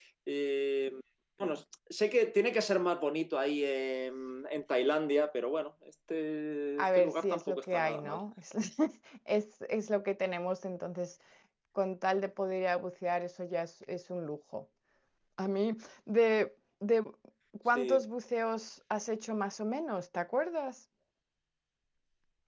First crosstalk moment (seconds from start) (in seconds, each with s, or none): 6.8 s